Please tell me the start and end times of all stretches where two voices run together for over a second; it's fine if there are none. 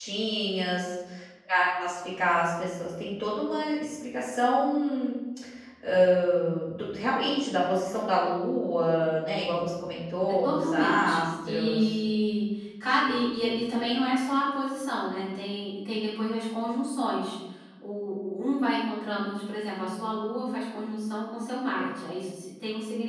10.4-11.9

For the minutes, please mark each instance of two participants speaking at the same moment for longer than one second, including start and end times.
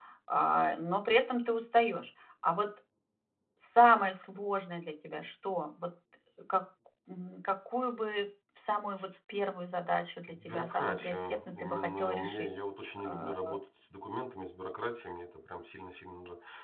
10.3-12.5

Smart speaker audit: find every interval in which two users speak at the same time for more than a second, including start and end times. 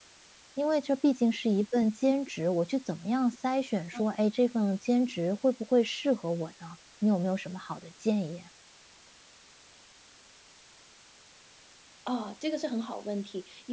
none

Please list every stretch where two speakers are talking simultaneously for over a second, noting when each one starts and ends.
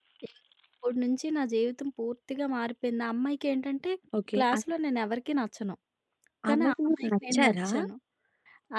6.5-7.7

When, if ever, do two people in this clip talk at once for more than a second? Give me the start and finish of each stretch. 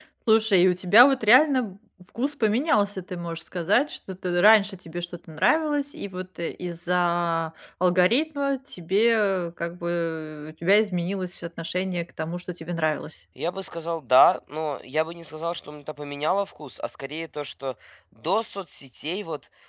none

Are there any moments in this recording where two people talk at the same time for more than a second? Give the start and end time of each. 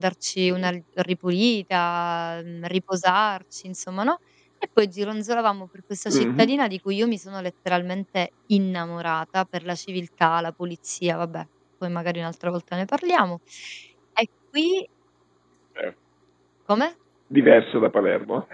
none

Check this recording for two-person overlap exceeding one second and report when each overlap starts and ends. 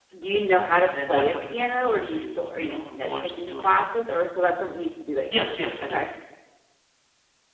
0.8-3.8

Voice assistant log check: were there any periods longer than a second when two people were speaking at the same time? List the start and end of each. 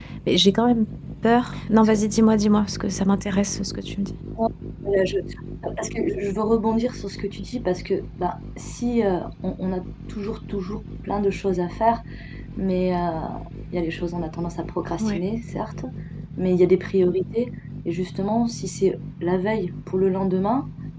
none

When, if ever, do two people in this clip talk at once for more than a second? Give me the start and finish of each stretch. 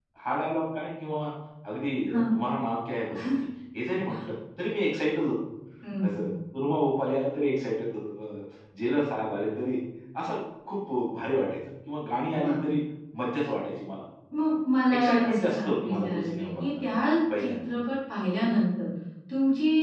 14.9-16.9

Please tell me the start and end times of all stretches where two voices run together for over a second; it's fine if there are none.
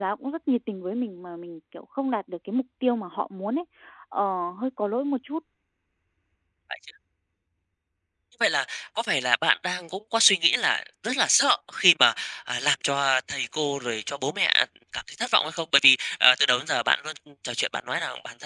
none

